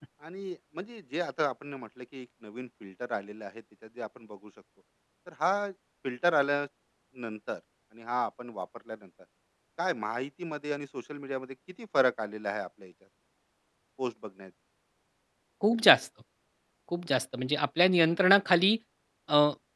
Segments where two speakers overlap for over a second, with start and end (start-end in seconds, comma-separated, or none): none